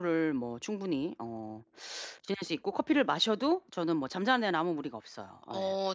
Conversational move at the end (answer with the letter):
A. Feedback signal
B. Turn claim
A